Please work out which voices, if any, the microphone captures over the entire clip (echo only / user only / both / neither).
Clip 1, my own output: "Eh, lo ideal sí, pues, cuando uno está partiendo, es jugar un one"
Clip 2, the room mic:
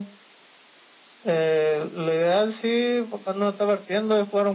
echo only